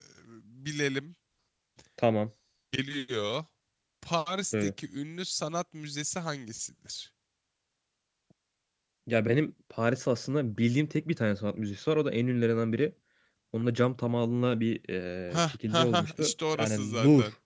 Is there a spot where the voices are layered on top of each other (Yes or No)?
Yes